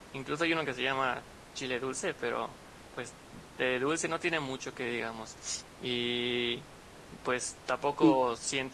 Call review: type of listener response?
listening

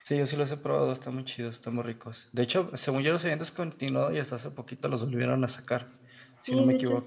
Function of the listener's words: taking over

